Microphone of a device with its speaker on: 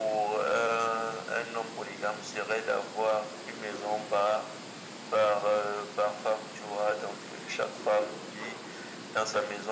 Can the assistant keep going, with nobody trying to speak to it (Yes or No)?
Yes